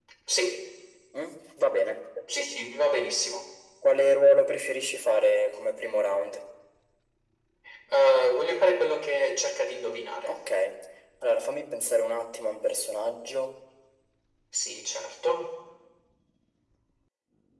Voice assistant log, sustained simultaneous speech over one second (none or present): none